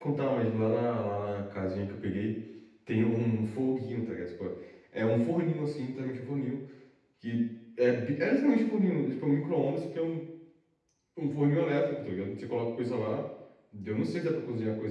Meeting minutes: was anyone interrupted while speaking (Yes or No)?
No